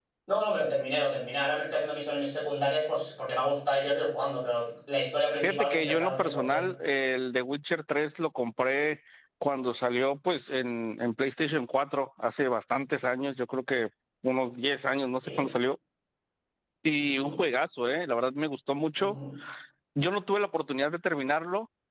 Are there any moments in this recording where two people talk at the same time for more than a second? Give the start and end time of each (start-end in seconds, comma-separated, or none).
5.4-6.7